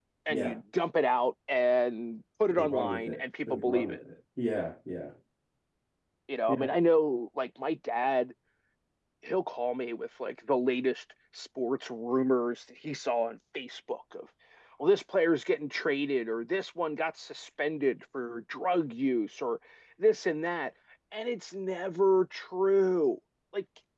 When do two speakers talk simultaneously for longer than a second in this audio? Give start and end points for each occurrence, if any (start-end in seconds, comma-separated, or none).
2.5-4.0